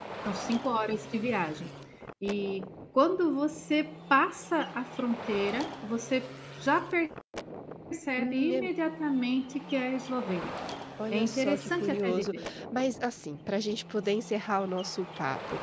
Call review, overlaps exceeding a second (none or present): present